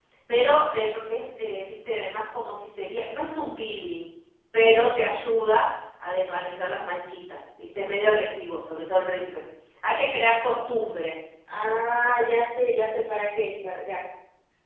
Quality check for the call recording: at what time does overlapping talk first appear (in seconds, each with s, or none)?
none